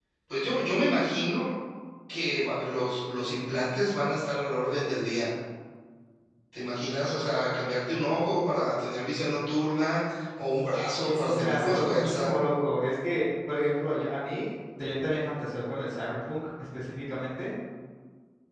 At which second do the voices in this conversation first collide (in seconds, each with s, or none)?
11.1 s